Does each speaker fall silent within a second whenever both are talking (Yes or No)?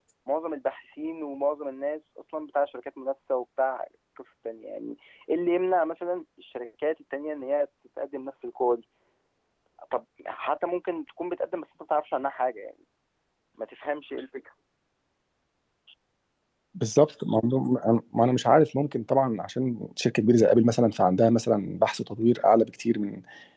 Yes